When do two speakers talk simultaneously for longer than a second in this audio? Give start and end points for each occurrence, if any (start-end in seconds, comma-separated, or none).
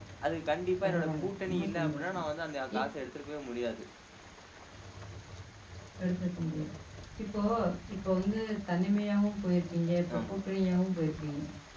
0.8-2.2